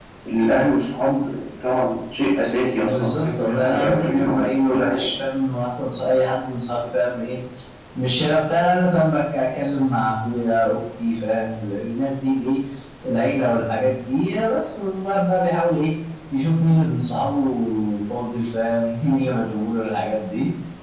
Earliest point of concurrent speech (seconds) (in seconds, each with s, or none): 2.8 s